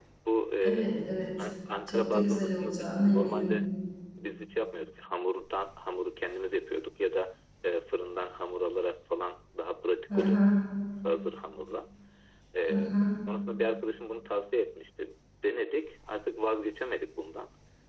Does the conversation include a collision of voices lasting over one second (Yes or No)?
Yes